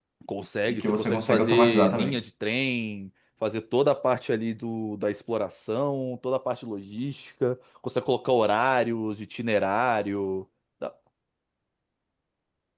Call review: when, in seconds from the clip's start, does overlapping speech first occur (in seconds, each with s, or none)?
0.7 s